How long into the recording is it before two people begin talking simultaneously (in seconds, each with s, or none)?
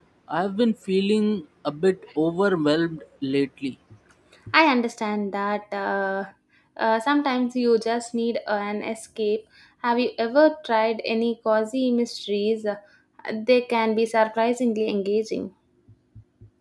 none